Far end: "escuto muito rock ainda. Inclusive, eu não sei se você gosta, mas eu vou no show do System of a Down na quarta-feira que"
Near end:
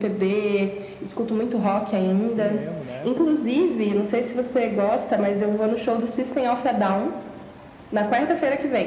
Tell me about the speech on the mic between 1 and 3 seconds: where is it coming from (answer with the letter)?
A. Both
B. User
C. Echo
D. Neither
A